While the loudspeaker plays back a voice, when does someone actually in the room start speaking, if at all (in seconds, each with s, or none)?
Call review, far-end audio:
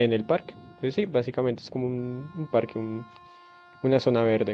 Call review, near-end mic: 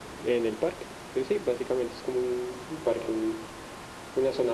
none